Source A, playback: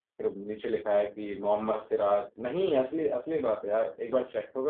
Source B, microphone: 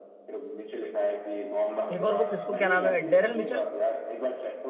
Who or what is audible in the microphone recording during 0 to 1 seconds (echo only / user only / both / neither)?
echo only